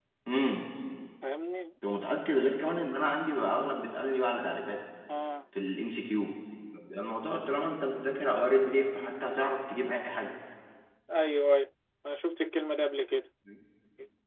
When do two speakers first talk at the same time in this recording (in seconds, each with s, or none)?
none